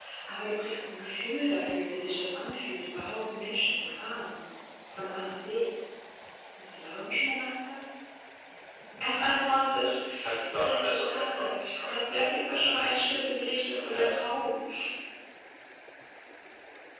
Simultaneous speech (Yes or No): Yes